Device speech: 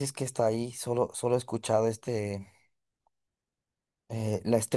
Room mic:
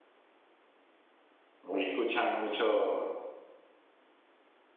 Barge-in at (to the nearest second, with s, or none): 2 s